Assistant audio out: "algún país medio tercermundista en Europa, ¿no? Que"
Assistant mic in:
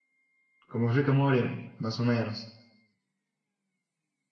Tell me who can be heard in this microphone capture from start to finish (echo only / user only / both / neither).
user only